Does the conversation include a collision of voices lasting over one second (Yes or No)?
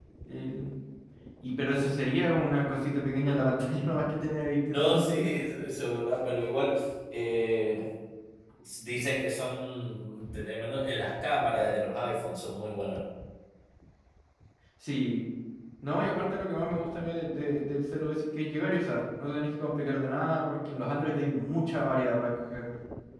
No